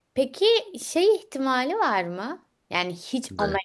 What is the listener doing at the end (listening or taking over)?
listening